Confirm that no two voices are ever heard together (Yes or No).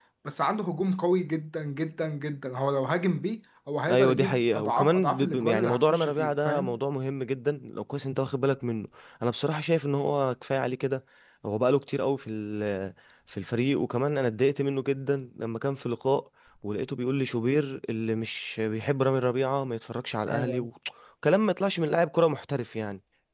No